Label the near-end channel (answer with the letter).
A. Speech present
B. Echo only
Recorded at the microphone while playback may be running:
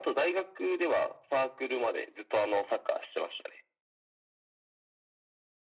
B